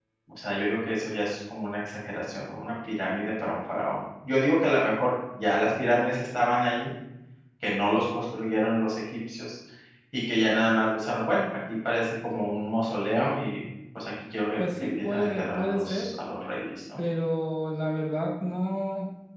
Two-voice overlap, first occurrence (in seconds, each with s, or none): 14.6 s